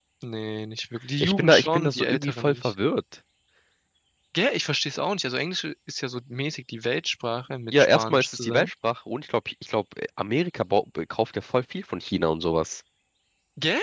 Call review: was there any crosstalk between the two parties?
Yes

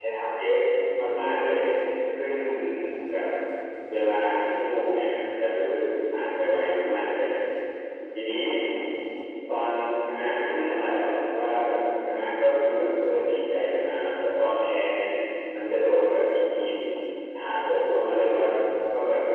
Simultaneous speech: No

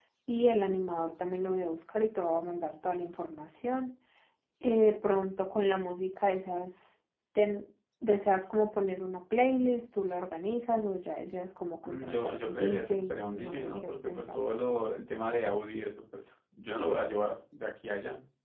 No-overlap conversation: No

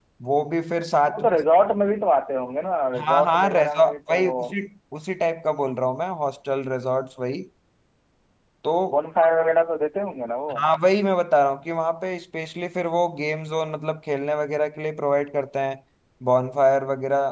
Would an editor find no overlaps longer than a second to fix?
No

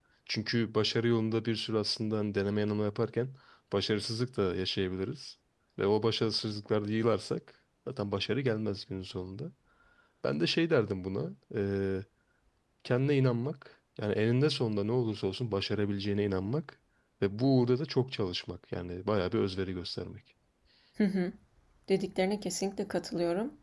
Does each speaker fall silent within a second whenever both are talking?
Yes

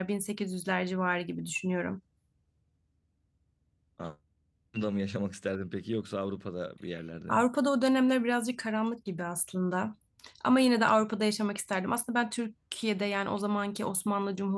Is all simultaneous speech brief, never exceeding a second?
Yes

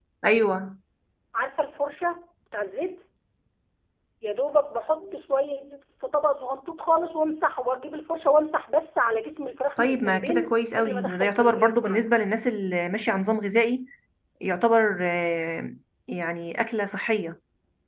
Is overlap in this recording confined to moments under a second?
No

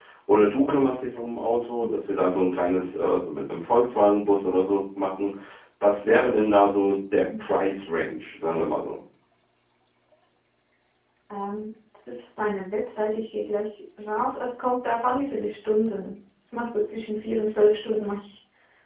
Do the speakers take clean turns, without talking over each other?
Yes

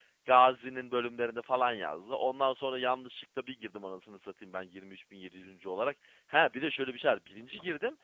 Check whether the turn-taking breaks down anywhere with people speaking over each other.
No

